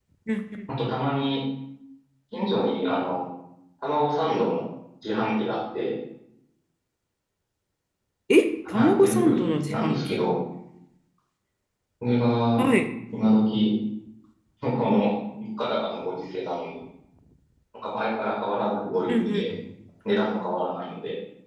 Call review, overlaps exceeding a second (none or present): present